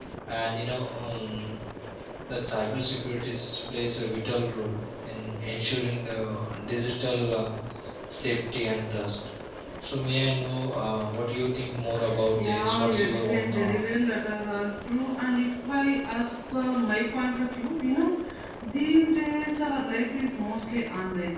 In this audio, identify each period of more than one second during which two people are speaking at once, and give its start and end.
12.3-13.8

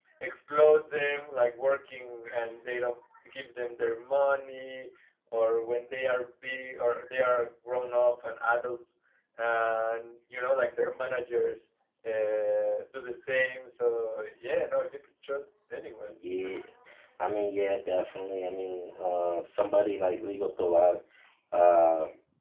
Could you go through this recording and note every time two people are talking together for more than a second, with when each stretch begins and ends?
none

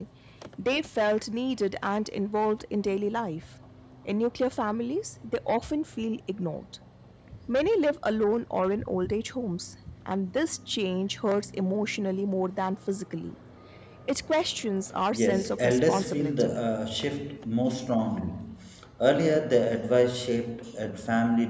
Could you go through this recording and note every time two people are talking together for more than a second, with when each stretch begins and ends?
15.1-16.6

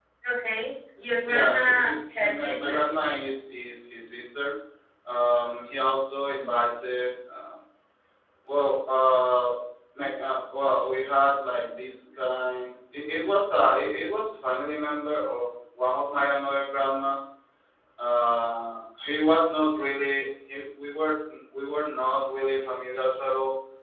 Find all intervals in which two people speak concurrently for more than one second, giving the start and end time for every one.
1.3-2.9

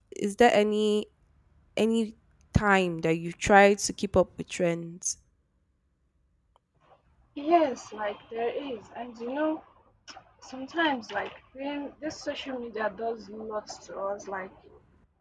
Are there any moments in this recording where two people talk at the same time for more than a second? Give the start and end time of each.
none

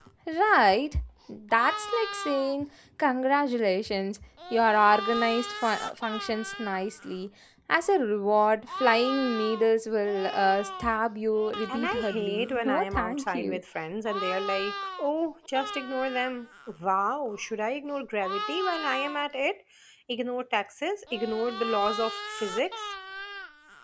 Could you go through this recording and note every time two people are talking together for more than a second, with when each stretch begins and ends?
11.7-13.6

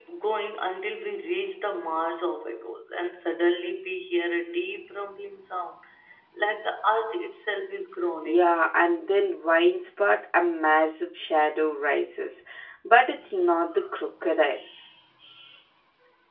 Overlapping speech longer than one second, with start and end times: none

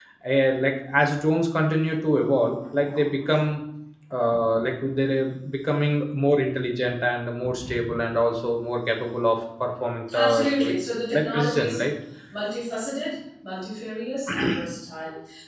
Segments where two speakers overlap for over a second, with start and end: 10.1-11.8

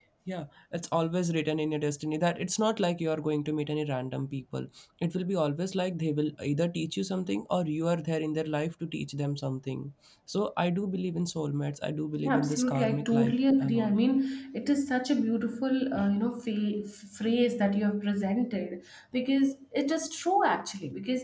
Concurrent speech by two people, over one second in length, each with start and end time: 12.2-13.9

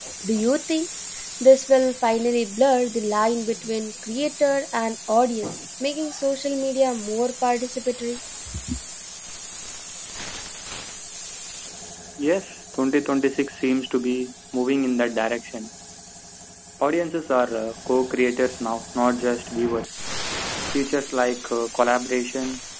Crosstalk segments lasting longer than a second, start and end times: none

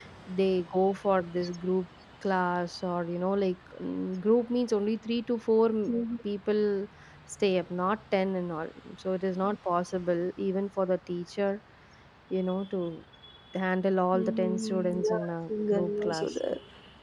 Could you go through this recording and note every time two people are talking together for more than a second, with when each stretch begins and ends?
14.1-16.4

